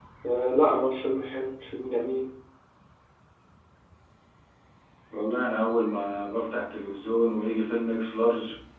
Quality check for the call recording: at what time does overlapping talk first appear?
none

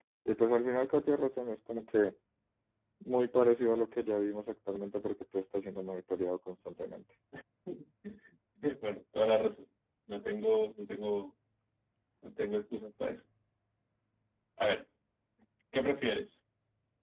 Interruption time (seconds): none

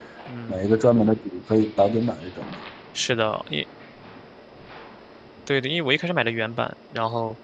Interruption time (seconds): none

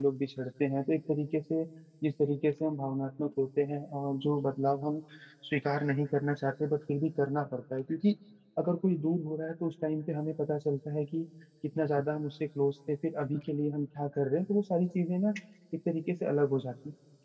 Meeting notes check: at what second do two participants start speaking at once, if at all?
none

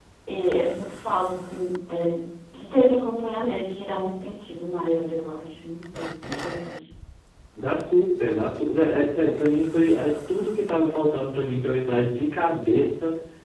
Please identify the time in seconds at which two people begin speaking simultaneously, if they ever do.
none

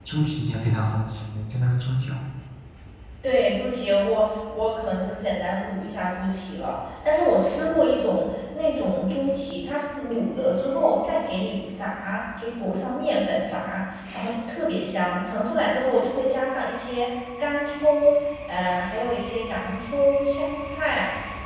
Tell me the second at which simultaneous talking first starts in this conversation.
none

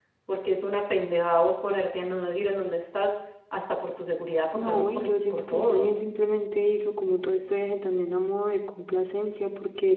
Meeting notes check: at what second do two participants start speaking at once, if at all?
4.5 s

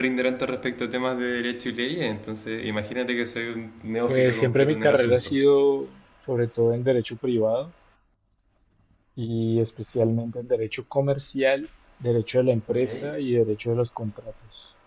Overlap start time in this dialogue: 4.1 s

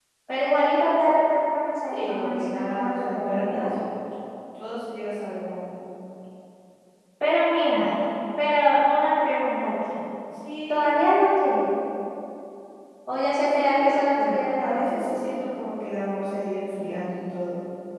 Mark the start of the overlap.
1.9 s

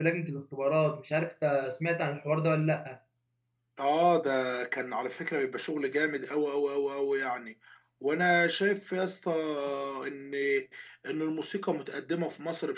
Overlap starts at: none

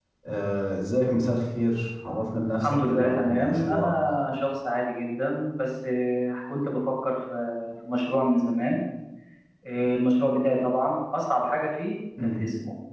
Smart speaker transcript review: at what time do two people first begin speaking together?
2.6 s

